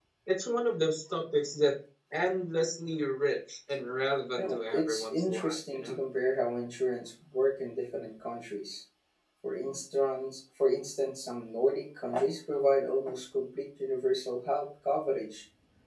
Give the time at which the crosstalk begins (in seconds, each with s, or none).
4.4 s